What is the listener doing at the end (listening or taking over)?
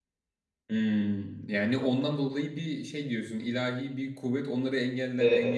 taking over